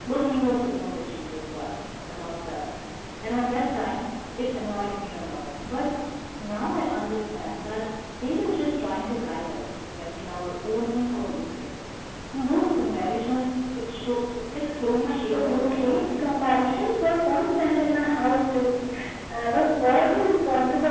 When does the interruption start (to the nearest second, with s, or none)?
15 s